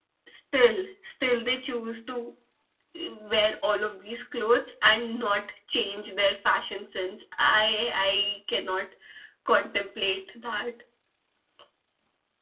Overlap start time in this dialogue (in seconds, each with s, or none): none